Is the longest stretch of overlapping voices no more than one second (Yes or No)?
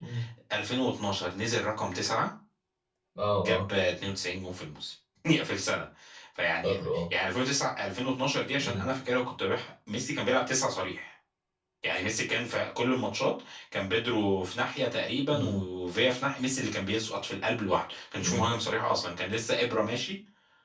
Yes